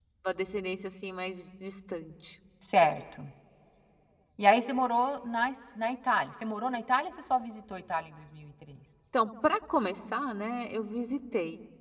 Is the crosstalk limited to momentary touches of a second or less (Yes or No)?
Yes